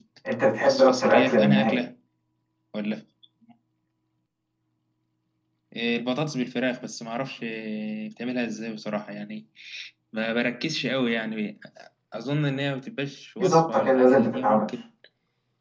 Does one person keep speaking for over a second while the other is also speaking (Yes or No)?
Yes